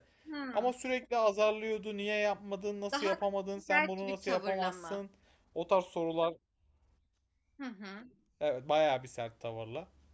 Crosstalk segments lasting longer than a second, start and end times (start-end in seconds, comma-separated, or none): 3.7-5.0